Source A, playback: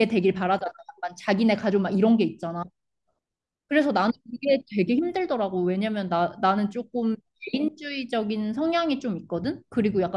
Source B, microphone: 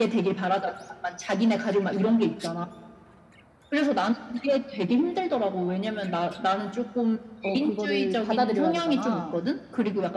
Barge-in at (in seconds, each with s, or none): 7.4 s